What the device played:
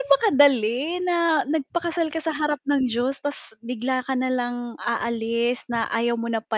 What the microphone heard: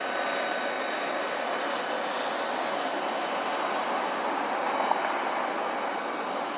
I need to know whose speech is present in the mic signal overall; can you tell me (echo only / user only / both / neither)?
neither